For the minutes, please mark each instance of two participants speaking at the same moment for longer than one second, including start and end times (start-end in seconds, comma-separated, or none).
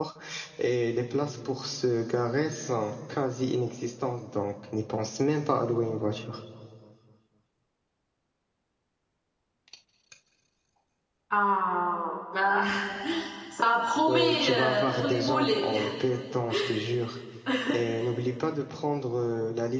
14.1-15.7